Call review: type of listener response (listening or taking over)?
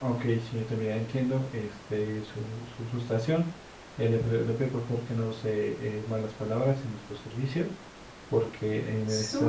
taking over